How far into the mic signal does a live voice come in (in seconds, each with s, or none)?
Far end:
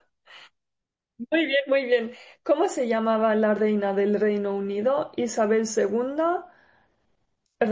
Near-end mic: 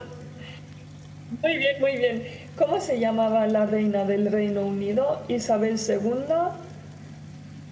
none